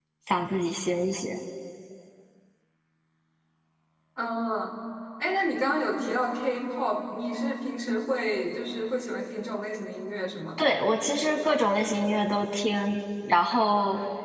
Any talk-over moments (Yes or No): No